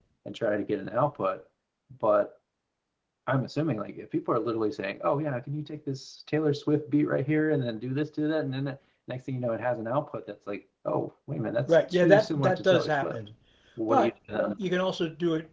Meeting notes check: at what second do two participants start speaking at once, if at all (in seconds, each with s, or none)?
11.7 s